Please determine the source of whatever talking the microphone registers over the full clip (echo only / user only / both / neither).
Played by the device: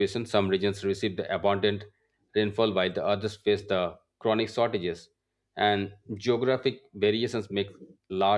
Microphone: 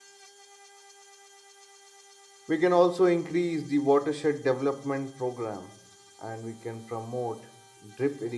user only